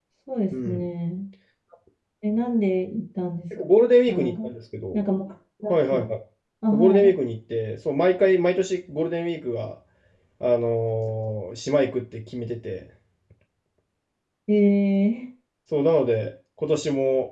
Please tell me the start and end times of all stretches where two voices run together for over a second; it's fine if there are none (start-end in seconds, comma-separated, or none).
none